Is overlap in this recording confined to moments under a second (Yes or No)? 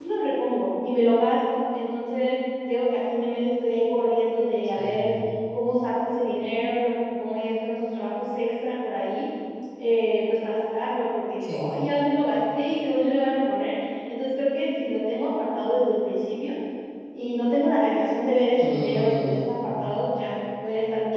No